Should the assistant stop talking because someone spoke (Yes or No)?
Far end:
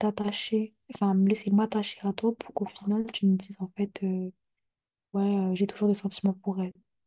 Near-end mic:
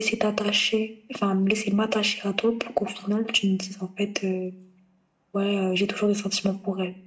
No